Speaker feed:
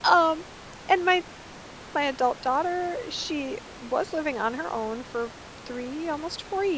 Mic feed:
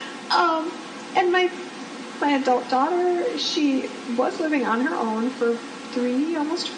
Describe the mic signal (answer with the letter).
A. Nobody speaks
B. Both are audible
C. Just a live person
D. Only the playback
D